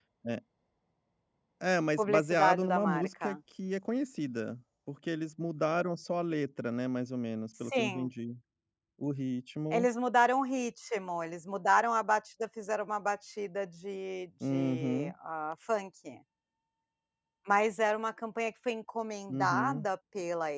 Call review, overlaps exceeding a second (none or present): present